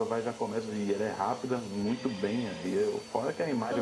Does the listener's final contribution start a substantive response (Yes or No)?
No